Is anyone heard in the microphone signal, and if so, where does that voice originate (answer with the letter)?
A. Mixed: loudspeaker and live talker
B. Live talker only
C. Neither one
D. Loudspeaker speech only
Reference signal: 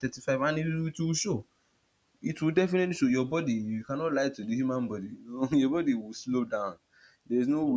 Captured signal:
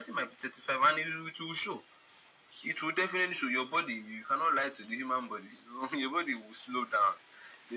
D